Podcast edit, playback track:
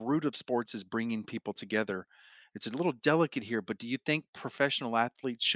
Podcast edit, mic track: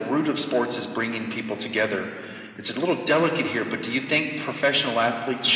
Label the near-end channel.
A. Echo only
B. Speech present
A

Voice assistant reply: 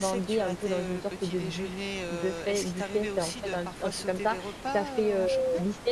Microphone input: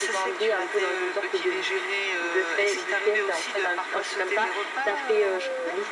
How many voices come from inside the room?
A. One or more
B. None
B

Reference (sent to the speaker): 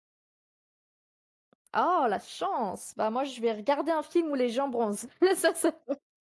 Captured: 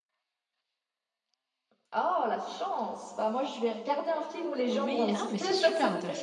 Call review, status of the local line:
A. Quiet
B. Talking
B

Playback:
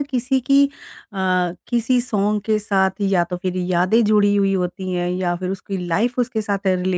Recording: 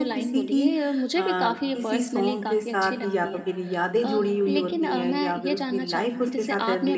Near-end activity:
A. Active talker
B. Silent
A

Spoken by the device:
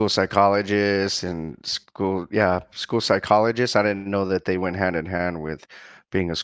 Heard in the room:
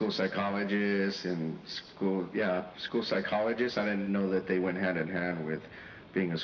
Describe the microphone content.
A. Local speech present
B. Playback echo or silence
B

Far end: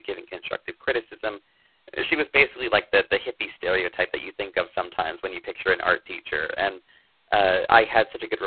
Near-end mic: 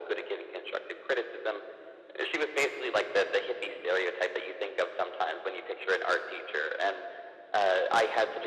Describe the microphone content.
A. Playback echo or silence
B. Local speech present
A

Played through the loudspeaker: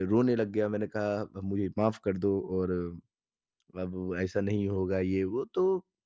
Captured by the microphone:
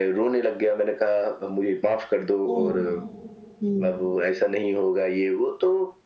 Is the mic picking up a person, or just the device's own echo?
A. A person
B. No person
A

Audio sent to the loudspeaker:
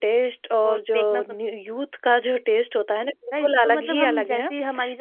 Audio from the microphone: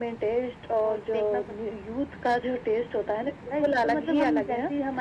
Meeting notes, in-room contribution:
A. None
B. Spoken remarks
A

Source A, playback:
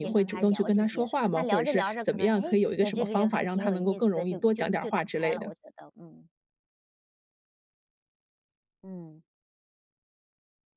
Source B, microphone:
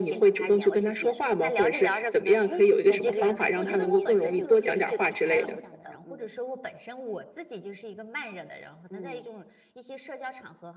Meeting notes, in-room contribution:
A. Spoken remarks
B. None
A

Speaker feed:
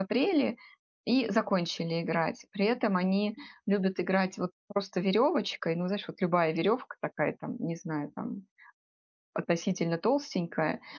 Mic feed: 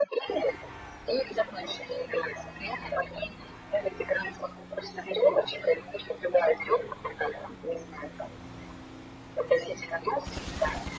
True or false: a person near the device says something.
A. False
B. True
A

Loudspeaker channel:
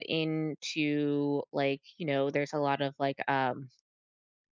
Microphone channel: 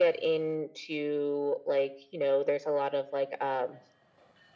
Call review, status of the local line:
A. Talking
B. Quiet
B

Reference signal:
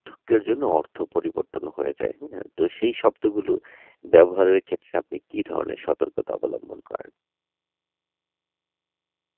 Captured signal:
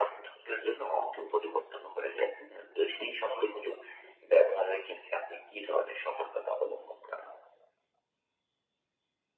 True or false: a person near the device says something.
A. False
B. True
A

